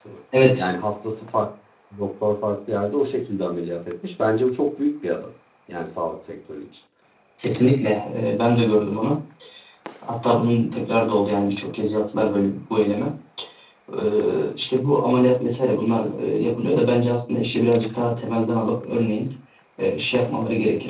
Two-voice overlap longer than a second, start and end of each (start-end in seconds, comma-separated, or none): none